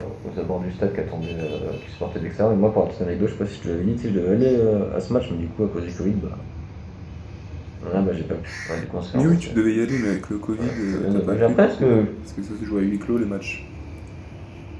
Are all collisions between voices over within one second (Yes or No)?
No